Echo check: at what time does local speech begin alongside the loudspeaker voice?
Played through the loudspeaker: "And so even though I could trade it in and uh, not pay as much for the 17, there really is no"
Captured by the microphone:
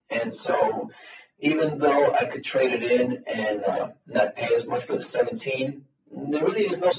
none

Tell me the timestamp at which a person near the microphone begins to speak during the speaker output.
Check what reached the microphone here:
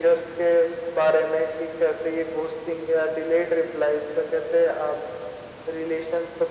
none

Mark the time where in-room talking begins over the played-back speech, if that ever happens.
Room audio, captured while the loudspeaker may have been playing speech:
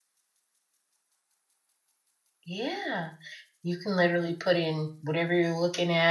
2.5 s

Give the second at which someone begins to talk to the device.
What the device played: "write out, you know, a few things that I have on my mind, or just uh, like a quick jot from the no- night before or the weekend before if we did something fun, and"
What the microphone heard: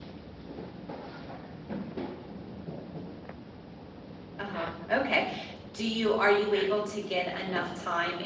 4.4 s

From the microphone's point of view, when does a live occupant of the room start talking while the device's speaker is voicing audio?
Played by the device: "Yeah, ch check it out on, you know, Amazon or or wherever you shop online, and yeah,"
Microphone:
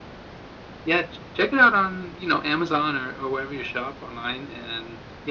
none

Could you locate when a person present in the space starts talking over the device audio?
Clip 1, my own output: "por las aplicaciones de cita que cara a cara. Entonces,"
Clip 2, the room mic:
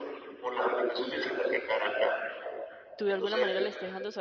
3.0 s

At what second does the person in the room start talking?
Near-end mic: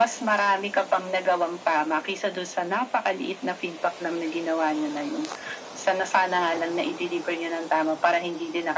none

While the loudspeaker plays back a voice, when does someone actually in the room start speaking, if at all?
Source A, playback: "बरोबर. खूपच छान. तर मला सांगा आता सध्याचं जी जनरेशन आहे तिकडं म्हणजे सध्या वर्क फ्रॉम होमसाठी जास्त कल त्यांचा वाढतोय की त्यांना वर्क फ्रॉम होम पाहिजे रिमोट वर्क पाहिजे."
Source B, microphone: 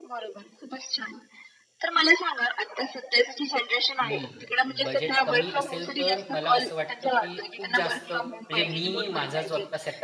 4.0 s

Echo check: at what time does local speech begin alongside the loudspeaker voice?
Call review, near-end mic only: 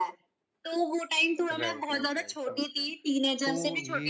1.5 s

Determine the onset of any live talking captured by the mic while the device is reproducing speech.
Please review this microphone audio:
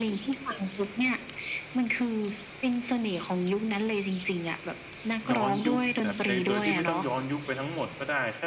5.3 s

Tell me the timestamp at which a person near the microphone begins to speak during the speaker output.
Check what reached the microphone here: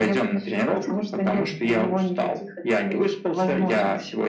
none

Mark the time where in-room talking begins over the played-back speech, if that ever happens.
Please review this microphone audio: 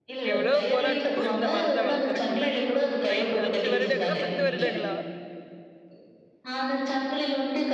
0.3 s

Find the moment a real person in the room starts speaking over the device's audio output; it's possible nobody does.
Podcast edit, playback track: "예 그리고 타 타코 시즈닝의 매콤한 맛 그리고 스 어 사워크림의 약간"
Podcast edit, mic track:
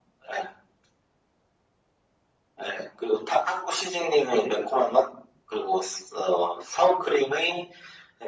none

